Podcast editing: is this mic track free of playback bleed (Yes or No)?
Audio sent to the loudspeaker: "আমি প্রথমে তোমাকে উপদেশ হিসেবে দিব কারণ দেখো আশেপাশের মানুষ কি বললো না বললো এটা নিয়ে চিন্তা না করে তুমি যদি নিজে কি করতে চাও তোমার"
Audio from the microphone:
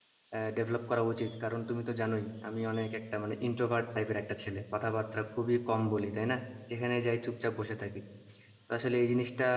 Yes